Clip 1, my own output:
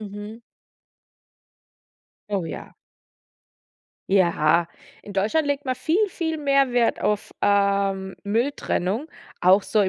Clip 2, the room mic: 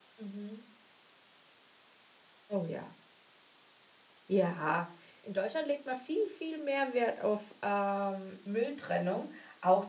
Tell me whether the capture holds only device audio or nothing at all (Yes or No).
Yes